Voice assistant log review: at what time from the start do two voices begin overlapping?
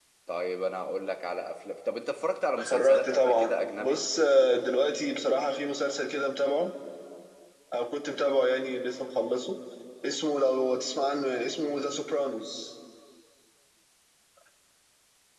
3 s

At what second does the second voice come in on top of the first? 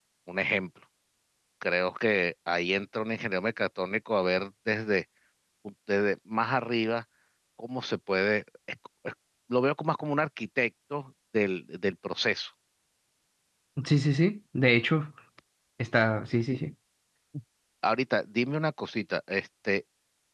none

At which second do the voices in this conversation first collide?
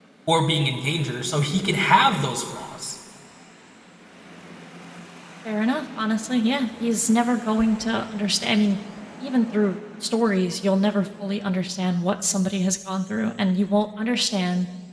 none

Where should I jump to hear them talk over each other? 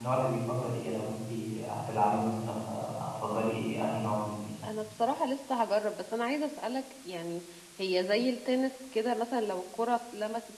none

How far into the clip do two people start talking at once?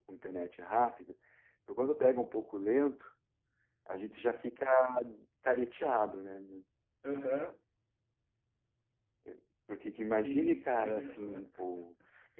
10 s

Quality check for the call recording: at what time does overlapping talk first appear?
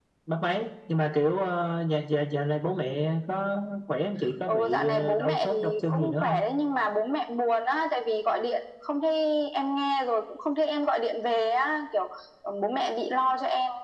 4 s

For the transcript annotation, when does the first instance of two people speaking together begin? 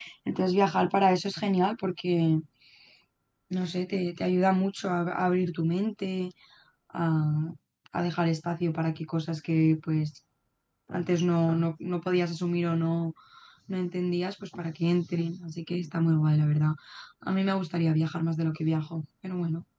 none

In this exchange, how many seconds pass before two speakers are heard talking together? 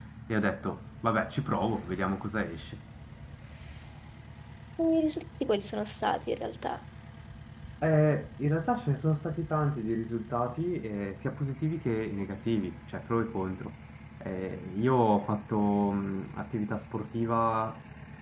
none

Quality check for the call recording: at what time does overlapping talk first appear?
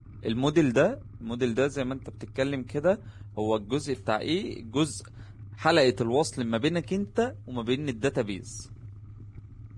none

